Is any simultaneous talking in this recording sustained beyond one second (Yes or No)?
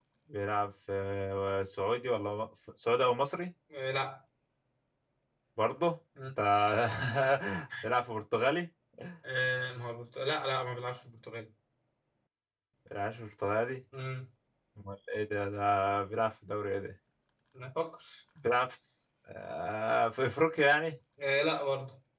No